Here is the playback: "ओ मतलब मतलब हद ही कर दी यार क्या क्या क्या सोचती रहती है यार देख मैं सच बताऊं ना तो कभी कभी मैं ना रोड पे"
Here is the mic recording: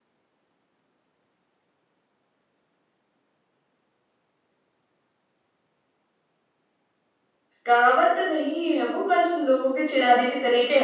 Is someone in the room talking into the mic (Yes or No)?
Yes